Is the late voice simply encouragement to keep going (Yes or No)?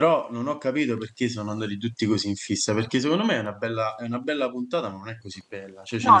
Yes